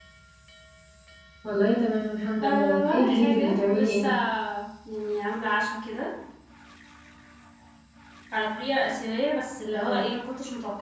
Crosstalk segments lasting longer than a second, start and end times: 2.4-4.1

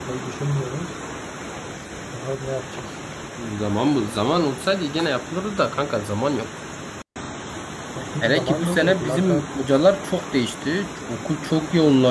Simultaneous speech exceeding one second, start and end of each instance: 8.2-9.4

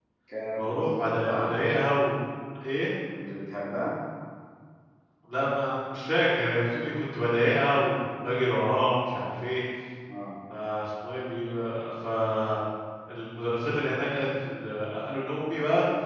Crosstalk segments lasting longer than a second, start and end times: none

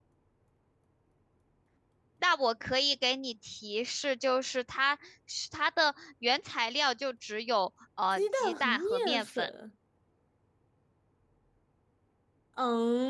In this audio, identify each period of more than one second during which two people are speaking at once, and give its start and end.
8.1-9.5

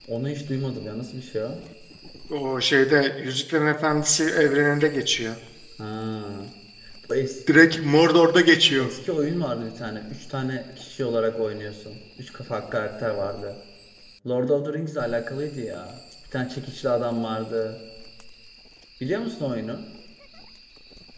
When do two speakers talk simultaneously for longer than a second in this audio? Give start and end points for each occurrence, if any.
none

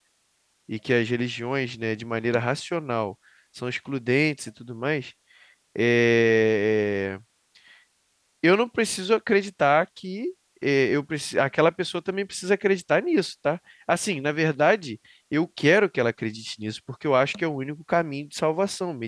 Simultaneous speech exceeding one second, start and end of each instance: none

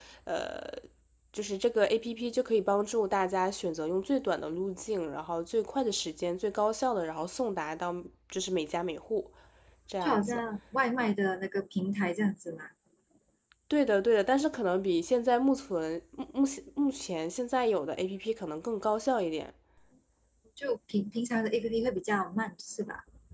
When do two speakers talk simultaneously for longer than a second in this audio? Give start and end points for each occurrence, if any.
none

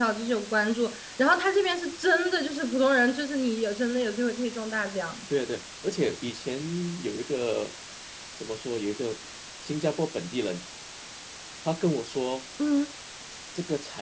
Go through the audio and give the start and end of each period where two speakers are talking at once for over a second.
none

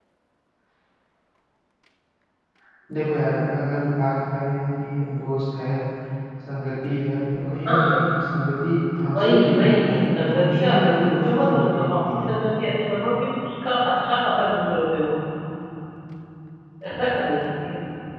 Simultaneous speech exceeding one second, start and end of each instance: 9.2-12.3

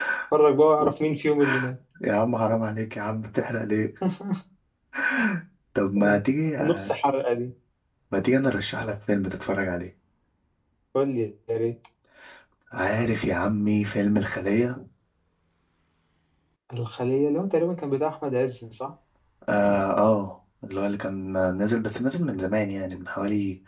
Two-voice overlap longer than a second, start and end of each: none

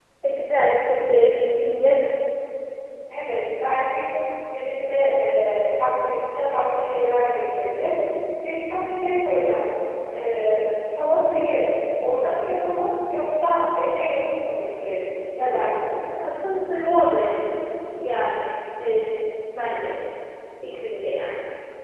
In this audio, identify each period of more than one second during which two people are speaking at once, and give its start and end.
none

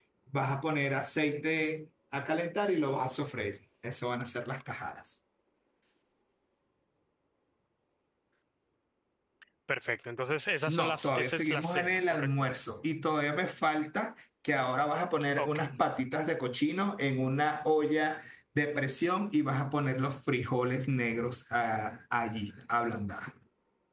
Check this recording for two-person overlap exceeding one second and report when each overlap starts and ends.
10.7-12.3

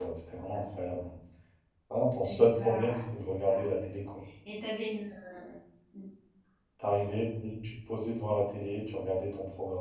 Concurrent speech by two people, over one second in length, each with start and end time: 2.2-3.7

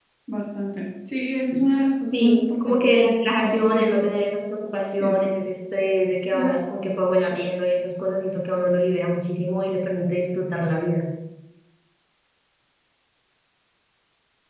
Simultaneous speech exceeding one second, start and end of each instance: 2.1-4.1

